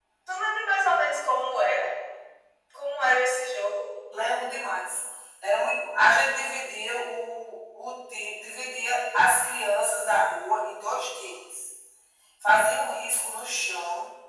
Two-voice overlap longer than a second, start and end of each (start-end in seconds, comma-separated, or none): none